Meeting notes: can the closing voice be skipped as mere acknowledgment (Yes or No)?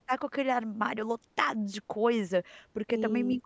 Yes